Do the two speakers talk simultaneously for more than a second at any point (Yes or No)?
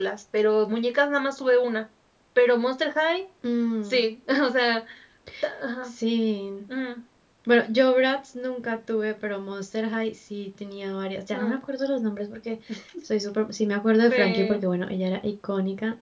No